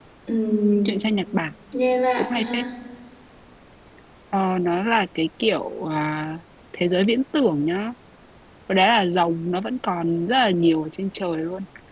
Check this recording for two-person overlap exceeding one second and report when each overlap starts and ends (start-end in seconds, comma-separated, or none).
none